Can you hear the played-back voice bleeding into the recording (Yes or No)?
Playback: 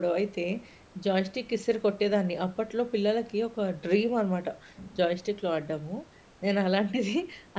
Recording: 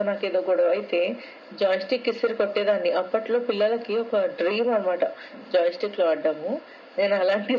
Yes